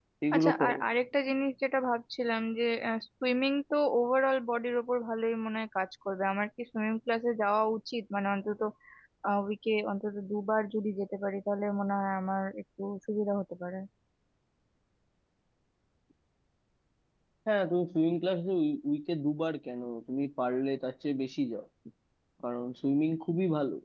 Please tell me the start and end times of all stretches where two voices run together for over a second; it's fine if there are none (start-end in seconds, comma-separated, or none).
none